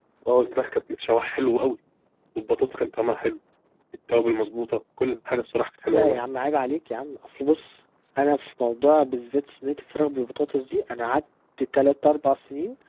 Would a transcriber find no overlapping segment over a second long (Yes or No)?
Yes